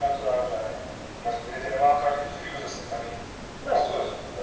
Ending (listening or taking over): taking over